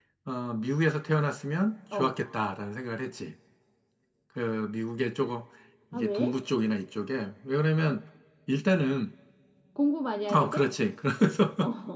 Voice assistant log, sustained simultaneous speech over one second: none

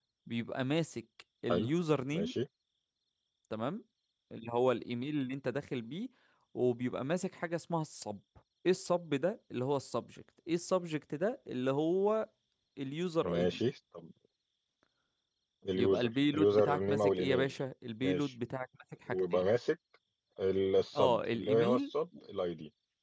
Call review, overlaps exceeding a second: present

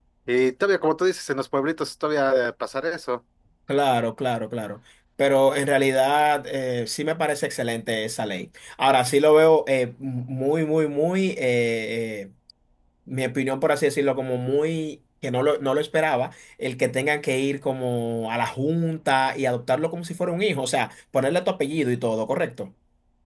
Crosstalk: none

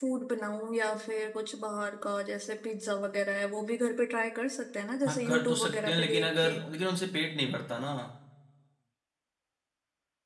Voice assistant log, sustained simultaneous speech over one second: present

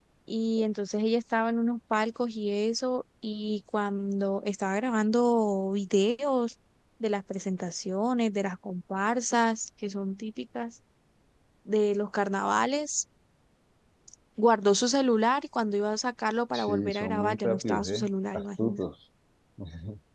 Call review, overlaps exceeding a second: present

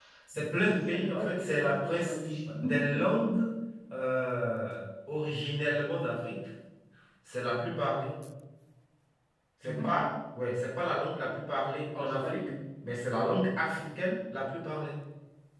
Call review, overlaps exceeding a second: present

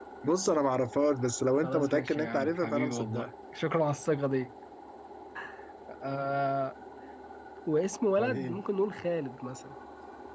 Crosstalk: present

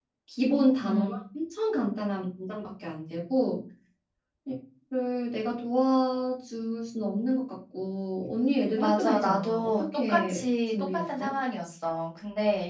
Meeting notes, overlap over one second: present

